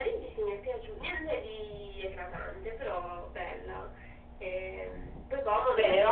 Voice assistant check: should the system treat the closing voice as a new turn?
Yes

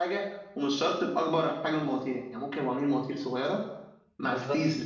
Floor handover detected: No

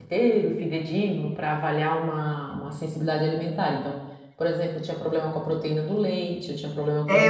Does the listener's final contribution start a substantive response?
Yes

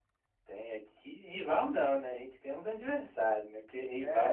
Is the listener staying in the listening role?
No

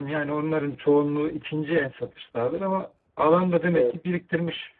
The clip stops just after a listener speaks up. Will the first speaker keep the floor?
Yes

